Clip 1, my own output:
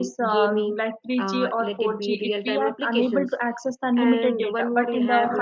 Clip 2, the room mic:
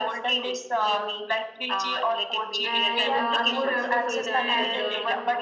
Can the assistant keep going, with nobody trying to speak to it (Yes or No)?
No